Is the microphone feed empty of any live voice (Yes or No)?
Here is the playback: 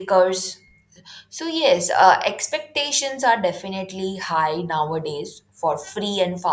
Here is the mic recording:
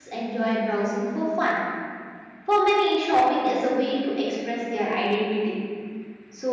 No